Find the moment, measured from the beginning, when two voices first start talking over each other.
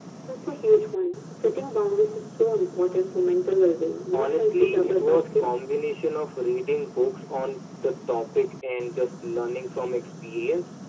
4.1 s

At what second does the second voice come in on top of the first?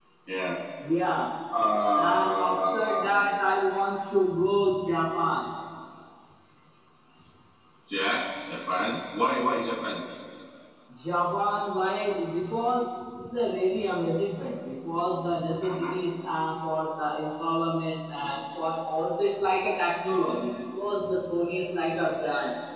1.9 s

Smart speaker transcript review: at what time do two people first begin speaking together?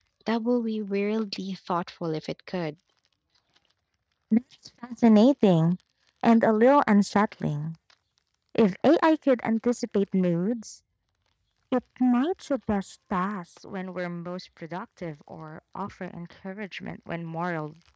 none

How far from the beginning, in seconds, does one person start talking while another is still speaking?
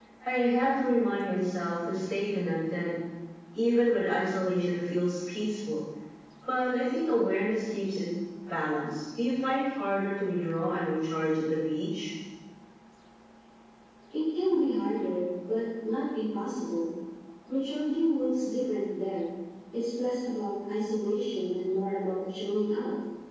none

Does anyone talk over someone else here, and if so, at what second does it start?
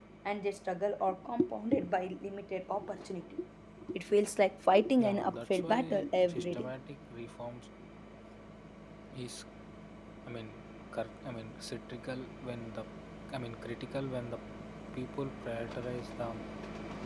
5.0 s

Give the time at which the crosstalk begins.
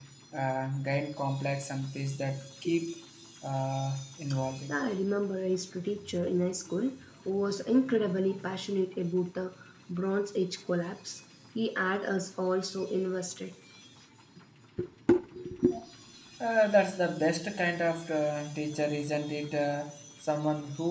none

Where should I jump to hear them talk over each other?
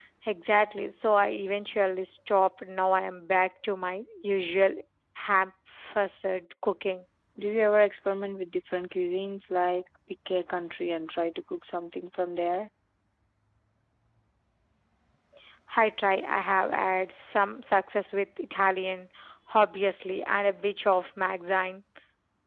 none

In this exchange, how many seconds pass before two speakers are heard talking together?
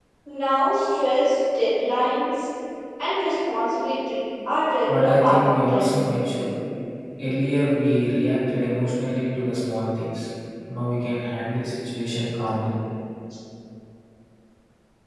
4.9 s

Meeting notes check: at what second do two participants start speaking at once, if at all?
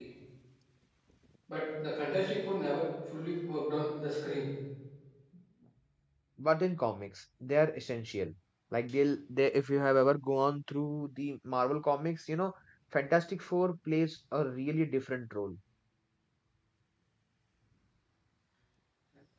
none

